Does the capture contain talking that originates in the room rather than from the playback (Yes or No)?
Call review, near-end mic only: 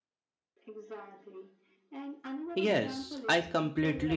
Yes